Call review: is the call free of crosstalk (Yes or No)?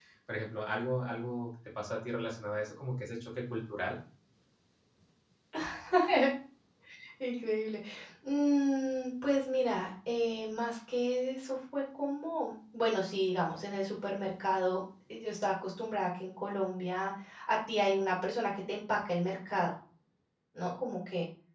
Yes